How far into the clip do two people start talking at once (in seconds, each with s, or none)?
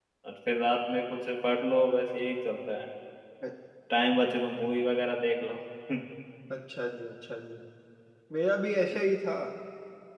none